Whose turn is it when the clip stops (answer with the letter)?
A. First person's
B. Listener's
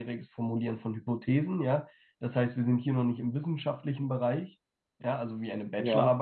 A